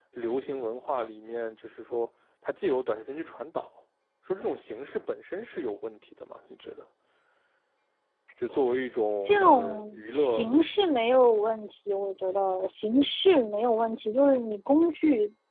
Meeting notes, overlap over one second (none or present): present